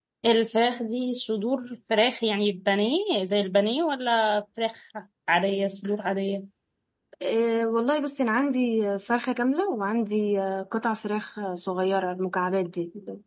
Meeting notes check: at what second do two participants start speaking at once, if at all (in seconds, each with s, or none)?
none